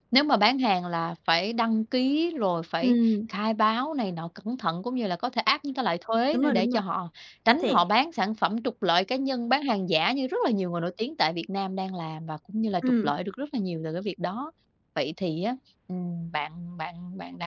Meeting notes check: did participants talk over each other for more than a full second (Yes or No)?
No